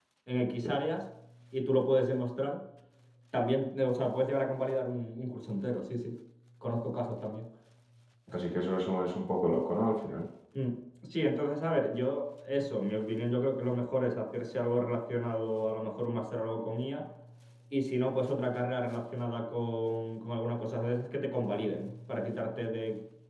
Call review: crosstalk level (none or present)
none